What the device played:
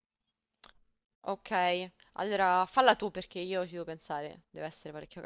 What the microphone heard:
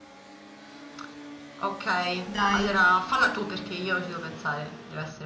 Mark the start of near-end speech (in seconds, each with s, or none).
2.2 s